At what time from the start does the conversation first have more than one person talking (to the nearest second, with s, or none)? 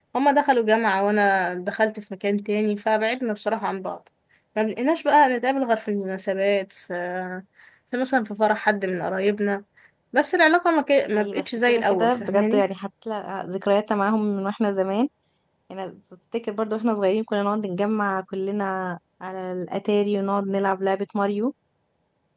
11 s